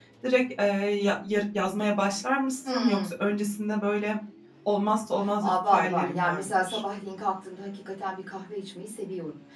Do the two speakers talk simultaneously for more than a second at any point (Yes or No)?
Yes